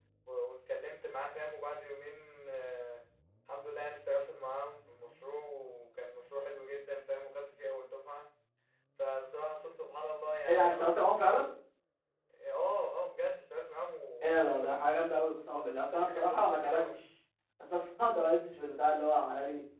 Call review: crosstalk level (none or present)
present